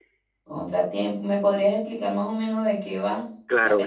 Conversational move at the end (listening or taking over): taking over